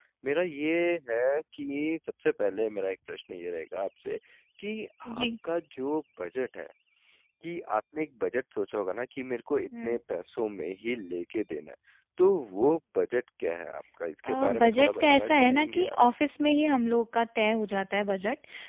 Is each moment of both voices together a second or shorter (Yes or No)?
No